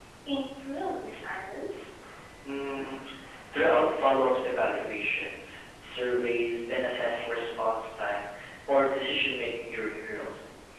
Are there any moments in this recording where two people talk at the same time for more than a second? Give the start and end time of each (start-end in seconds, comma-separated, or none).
none